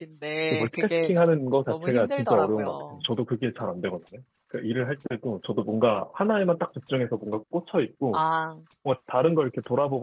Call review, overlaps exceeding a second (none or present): present